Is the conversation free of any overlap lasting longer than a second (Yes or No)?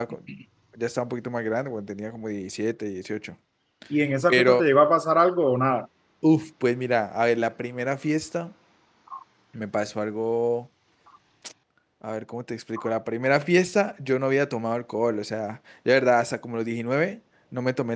Yes